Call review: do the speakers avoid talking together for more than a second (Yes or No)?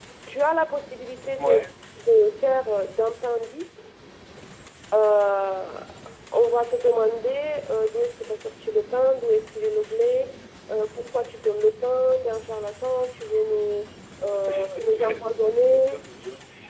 No